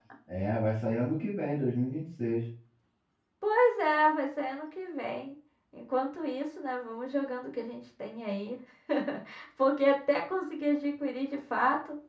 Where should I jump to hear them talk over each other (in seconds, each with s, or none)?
none